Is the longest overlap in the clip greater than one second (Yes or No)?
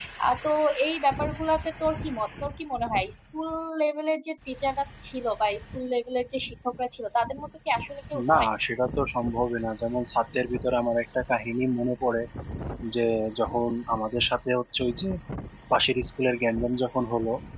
No